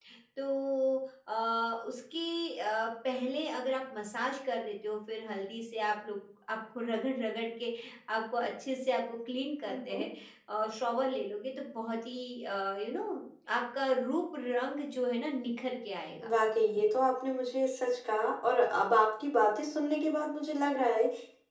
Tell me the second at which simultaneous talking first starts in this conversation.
none

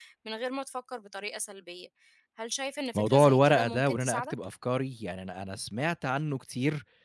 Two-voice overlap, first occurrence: 3.0 s

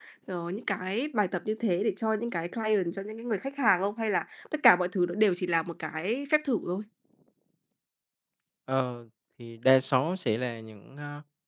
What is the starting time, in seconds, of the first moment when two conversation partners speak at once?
none

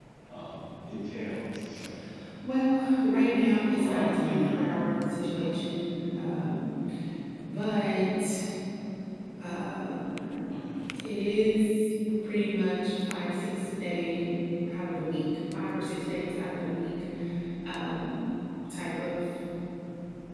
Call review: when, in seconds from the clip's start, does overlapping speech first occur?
3.2 s

